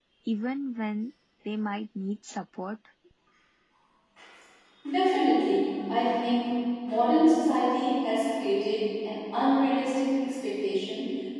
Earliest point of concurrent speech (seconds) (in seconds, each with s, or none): none